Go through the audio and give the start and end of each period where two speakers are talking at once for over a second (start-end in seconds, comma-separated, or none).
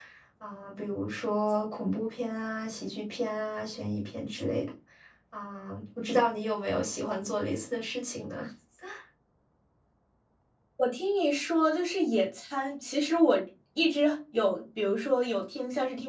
none